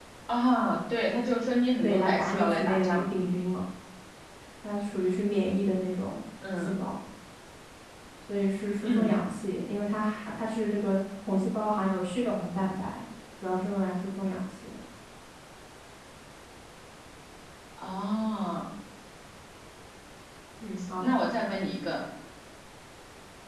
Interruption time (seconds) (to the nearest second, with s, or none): 2 s